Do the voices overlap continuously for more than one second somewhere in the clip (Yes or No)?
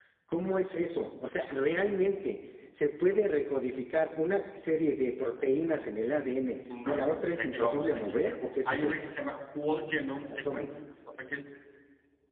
Yes